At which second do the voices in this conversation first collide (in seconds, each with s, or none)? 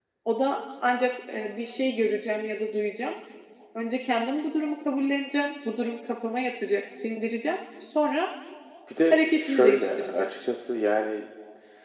9.1 s